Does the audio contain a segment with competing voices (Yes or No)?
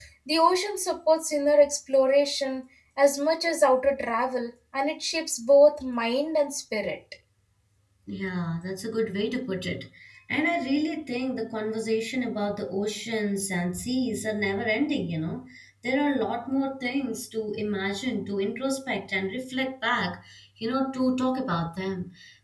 No